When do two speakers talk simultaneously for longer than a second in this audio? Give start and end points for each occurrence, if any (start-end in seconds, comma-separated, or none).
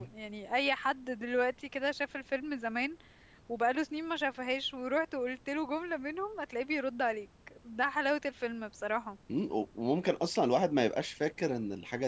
none